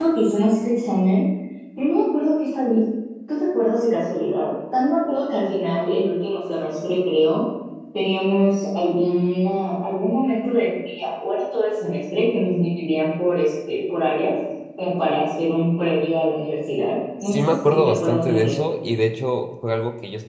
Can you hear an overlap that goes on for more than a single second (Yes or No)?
Yes